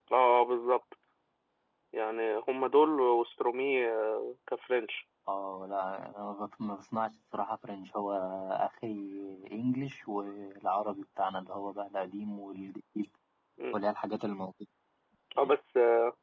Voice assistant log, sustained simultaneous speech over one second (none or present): none